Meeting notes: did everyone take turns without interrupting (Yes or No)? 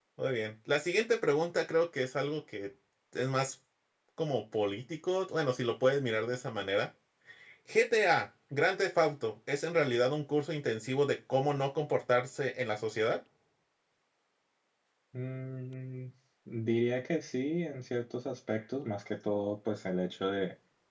Yes